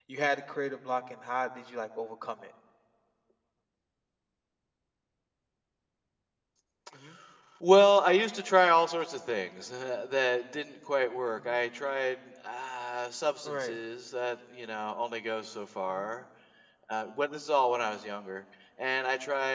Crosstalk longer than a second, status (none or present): none